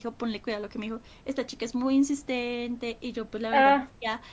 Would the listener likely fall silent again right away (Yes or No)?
Yes